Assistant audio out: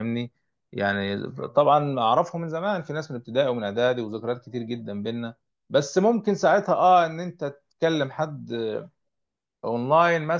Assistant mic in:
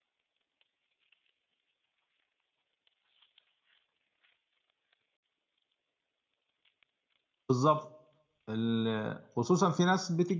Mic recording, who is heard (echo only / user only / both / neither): user only